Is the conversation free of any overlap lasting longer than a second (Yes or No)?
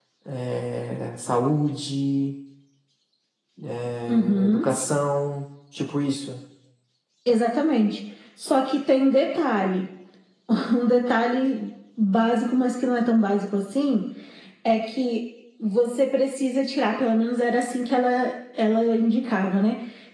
Yes